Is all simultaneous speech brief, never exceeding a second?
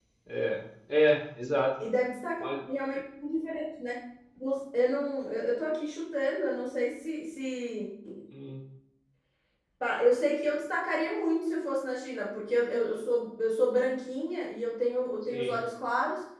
Yes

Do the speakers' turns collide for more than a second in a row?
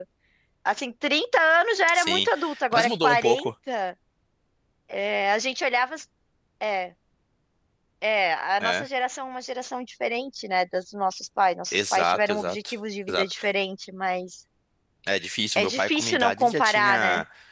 Yes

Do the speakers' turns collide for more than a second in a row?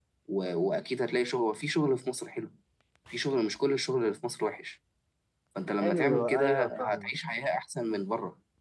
Yes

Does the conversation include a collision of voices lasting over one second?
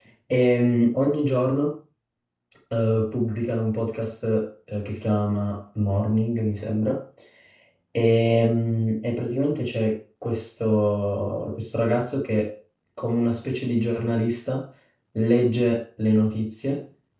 No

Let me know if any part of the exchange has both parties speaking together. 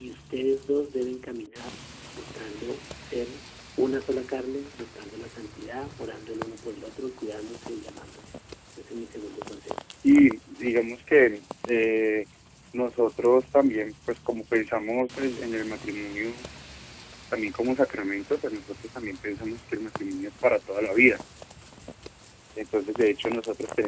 No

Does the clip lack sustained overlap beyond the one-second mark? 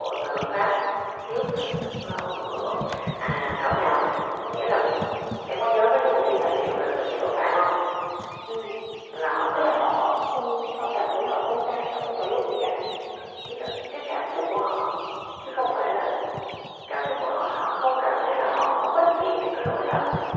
Yes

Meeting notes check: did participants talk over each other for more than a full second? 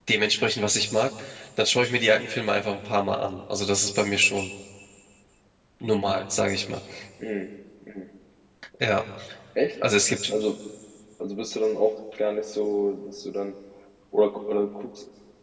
No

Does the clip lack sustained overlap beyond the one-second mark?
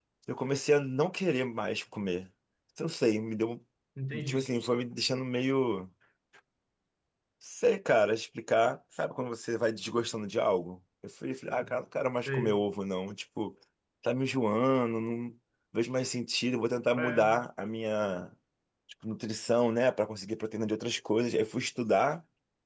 Yes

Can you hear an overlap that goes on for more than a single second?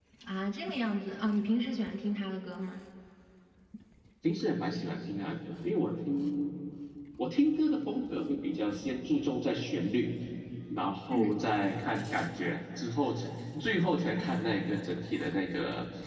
No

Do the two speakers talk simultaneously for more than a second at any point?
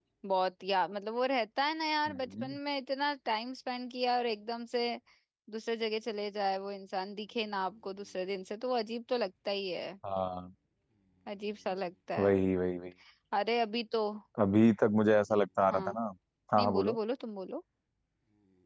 No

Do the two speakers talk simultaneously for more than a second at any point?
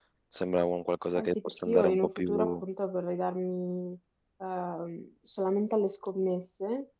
Yes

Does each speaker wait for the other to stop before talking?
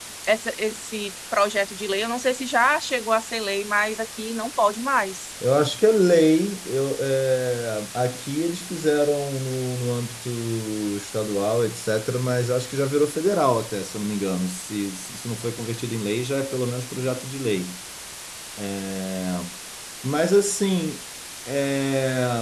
Yes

